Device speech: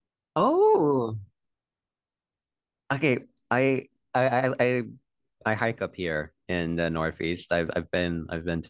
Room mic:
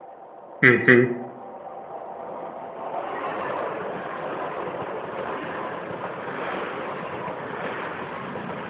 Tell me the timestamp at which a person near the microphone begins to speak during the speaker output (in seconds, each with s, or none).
0.6 s